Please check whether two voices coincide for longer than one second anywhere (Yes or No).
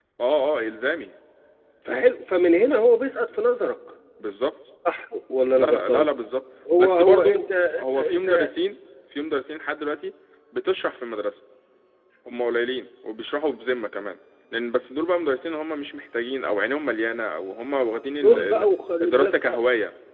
Yes